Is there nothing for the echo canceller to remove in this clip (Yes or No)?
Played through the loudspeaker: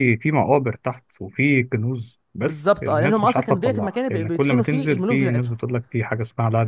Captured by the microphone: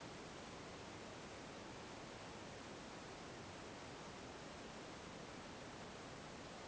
Yes